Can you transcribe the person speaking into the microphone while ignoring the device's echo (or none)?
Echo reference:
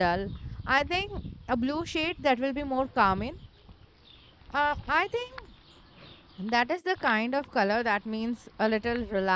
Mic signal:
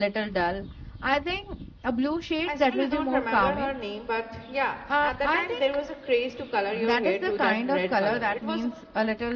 i still don't remember her name but yeah at that time there was a craze to color your hair to that red color it was